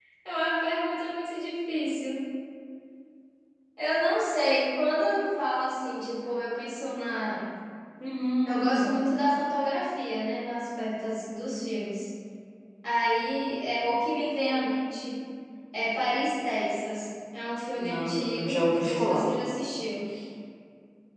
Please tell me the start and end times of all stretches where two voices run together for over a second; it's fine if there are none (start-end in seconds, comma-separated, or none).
17.7-19.2